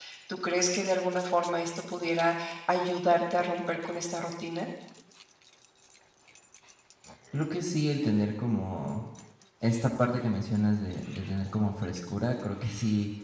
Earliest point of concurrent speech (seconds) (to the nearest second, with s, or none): none